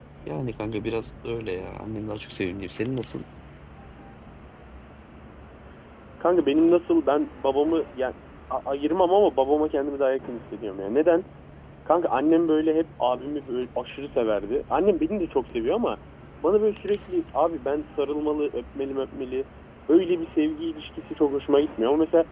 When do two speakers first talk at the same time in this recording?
none

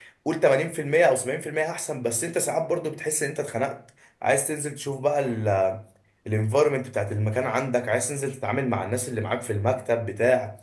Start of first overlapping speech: none

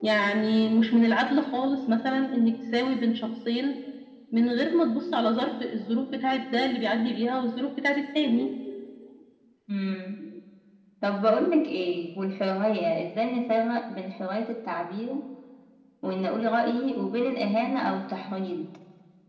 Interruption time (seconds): none

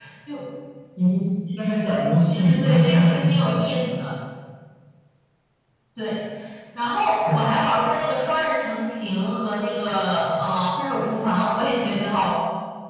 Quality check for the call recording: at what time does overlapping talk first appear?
2.3 s

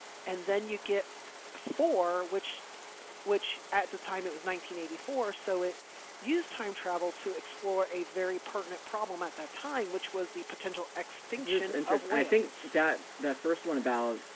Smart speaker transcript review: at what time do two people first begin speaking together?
11.4 s

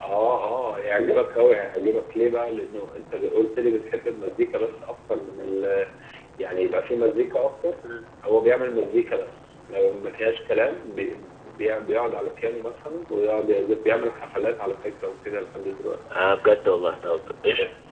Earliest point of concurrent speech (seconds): none

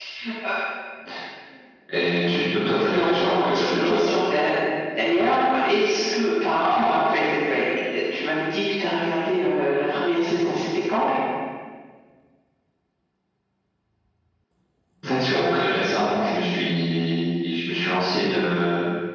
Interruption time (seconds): 2.8 s

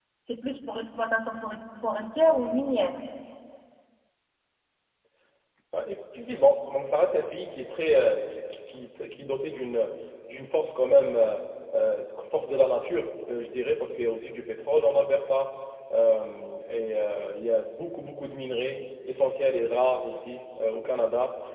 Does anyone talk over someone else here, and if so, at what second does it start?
none

